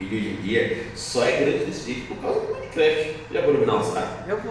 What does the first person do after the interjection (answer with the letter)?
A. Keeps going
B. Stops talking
B